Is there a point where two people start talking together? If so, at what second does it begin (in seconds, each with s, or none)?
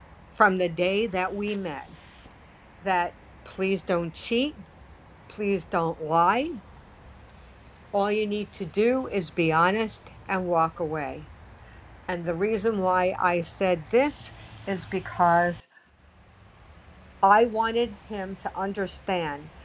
none